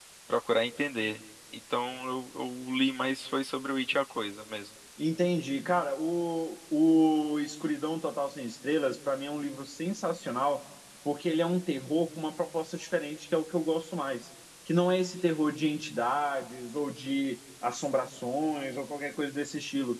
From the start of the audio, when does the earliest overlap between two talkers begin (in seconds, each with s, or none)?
none